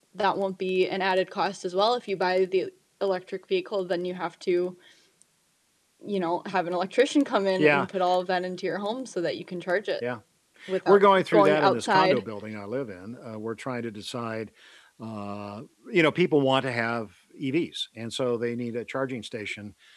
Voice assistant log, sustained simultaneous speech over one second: present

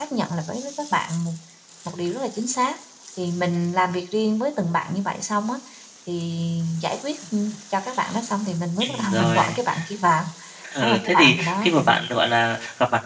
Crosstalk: present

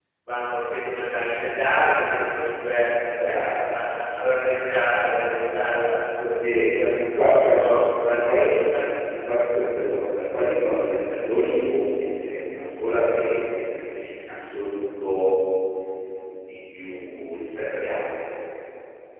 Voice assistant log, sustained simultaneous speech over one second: none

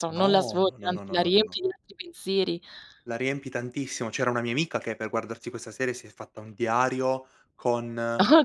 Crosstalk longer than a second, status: present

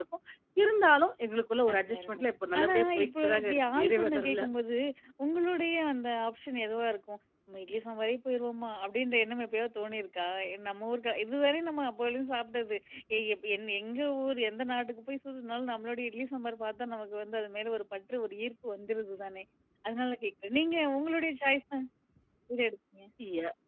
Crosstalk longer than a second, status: present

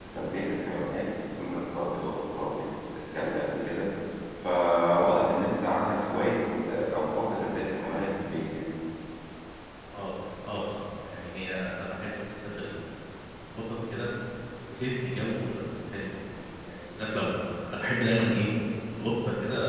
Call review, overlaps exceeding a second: none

